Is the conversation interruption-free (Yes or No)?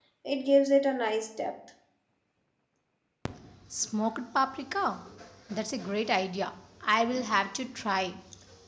Yes